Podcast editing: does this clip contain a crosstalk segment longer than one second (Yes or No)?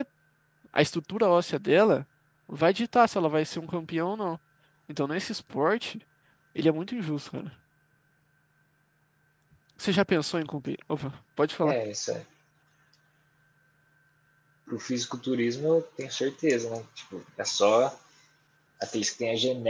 No